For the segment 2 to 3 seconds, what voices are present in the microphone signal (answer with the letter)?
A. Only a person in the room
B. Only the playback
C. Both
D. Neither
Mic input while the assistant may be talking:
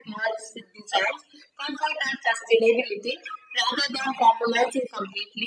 B